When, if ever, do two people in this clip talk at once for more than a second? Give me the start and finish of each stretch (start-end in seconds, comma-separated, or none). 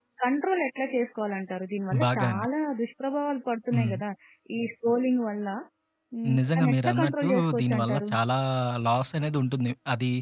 6.4-8.1